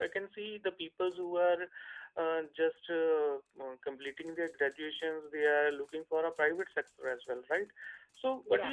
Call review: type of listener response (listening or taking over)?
listening